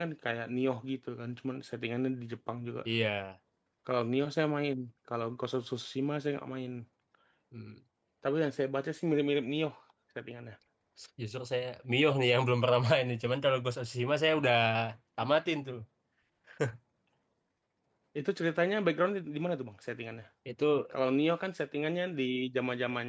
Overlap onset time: none

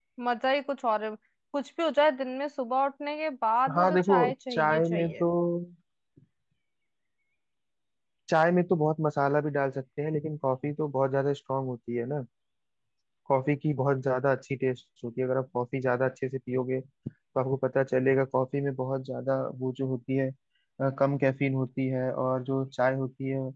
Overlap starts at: 4 s

